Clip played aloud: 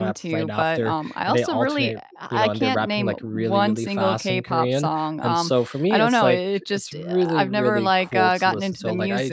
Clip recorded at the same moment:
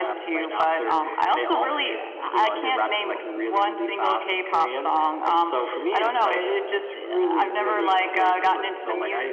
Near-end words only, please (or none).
none